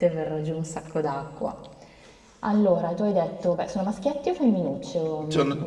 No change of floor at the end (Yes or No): No